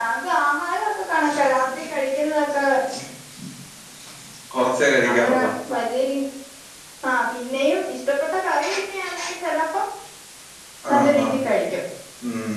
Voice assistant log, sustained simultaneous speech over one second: none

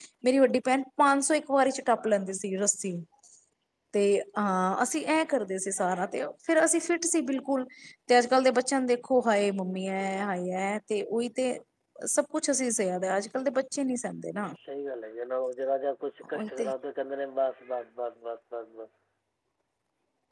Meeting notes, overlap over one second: none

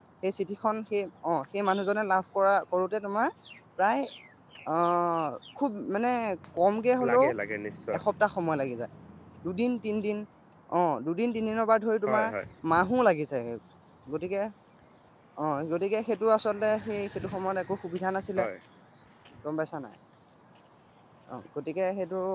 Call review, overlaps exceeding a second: none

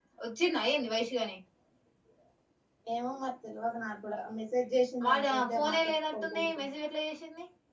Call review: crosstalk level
present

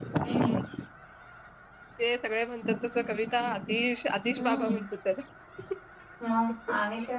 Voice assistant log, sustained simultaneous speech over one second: none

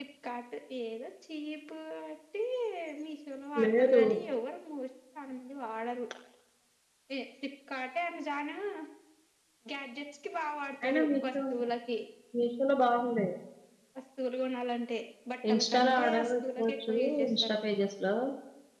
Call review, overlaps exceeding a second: present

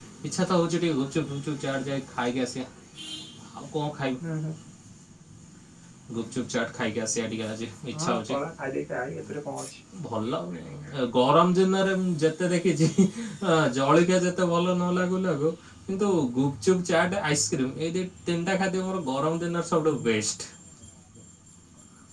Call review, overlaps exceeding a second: none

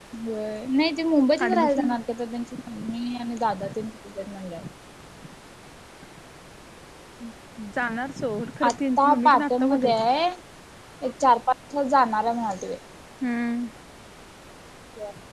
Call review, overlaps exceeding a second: present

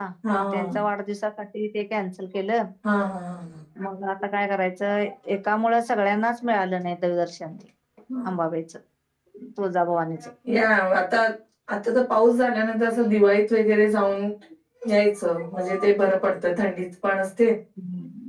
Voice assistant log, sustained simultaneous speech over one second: none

